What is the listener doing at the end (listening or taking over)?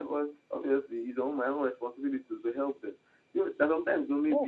listening